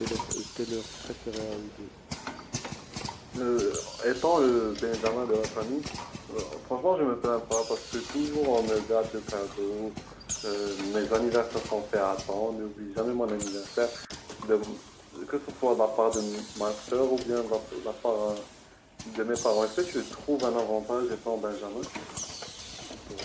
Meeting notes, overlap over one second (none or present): none